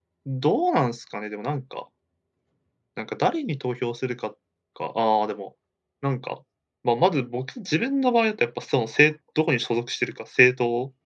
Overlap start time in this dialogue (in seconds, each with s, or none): none